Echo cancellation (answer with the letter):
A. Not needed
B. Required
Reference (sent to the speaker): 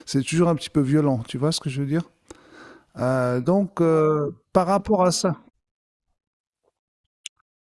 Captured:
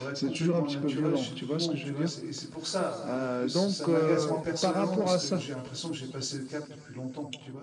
B